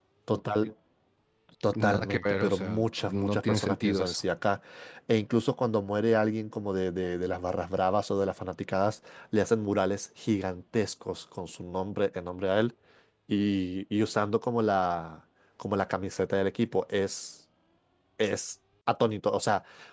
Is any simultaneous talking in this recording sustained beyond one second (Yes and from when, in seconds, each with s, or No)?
Yes, from 1.7 s